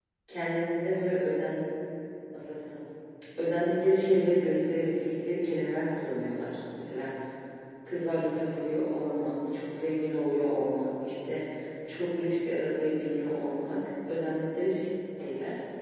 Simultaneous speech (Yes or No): No